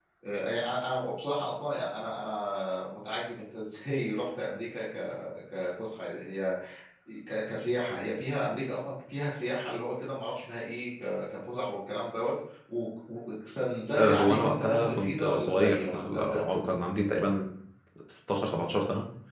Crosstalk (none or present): present